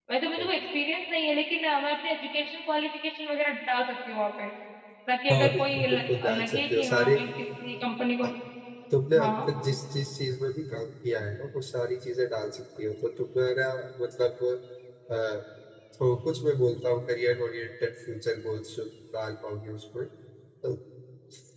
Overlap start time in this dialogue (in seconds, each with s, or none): 5.3 s